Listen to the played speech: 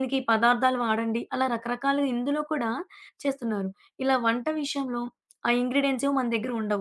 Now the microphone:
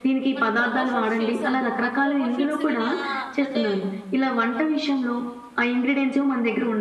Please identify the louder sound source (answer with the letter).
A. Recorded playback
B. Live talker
A